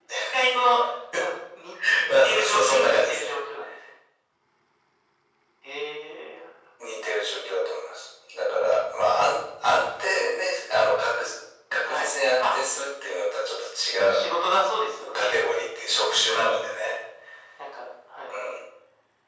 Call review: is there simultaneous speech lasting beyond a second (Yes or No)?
Yes